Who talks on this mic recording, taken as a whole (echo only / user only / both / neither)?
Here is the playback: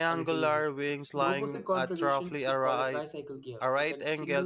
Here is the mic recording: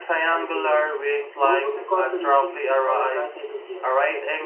echo only